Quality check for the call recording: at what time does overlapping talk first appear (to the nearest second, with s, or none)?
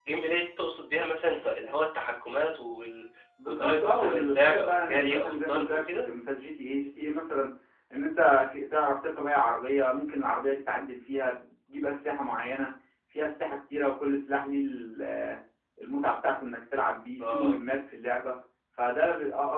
3 s